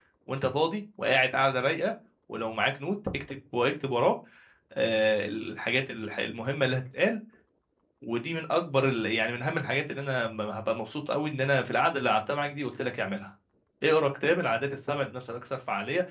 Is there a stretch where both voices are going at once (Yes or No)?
No